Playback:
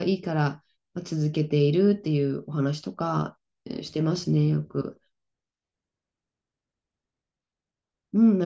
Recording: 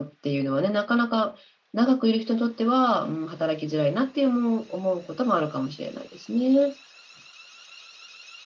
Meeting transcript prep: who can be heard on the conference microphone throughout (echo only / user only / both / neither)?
user only